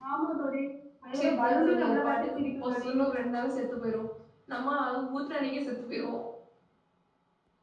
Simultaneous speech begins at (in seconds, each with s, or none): 1.1 s